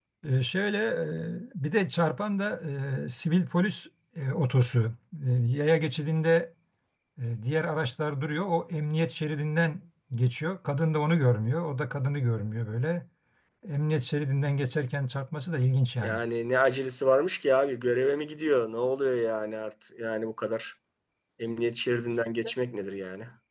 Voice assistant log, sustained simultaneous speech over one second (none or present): none